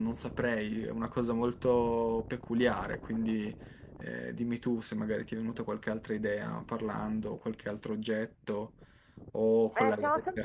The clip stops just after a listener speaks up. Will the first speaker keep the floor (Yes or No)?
No